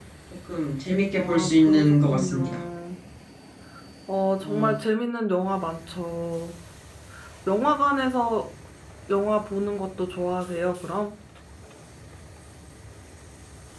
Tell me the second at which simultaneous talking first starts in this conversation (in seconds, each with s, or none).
1.1 s